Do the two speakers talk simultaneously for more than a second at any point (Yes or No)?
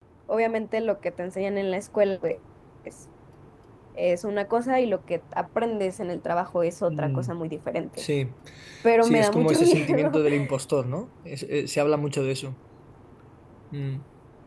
Yes